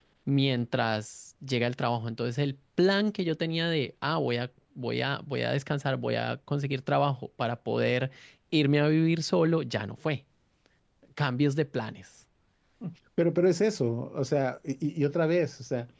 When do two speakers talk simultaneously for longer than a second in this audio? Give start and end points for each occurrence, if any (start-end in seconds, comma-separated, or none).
none